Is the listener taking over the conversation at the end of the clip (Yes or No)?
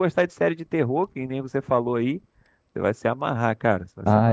Yes